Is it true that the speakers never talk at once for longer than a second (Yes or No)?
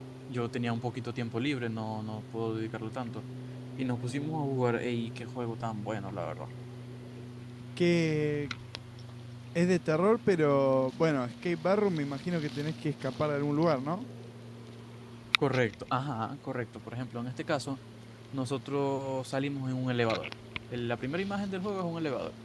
Yes